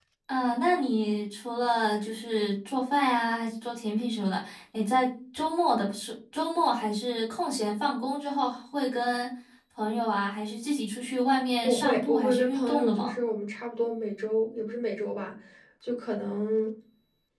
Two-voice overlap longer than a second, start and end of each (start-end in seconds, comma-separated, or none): 11.6-13.1